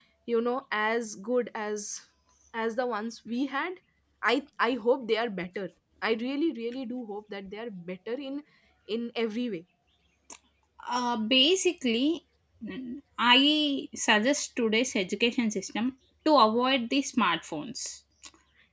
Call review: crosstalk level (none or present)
none